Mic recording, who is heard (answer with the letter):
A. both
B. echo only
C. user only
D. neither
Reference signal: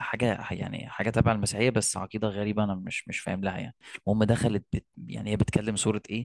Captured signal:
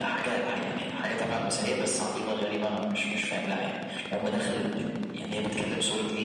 B